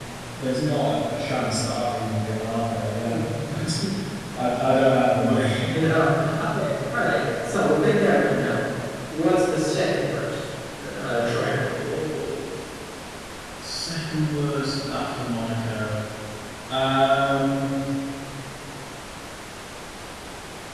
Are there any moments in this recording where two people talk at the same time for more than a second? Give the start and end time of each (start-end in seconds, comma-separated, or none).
none